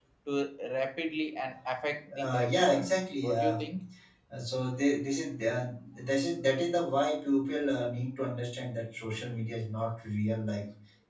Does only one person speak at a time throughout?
No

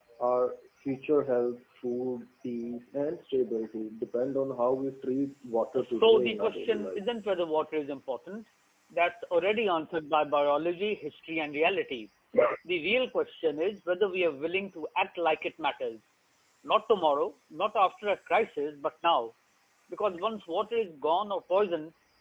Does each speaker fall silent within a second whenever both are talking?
No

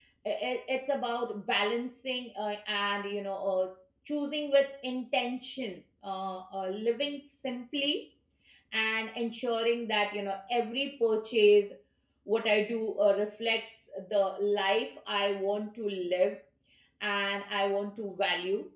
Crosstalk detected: No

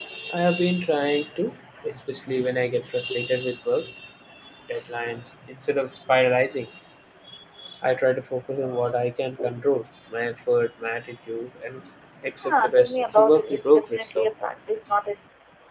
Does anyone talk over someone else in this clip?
Yes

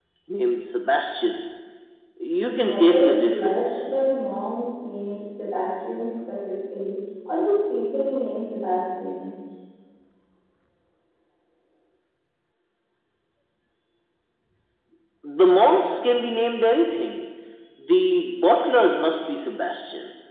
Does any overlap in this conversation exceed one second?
Yes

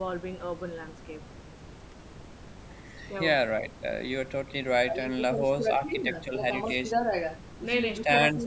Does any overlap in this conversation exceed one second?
Yes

